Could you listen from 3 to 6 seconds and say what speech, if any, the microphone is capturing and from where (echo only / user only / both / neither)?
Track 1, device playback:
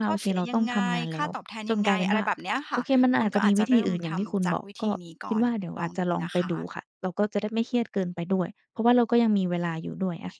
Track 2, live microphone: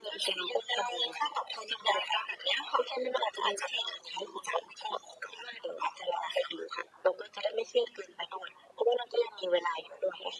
echo only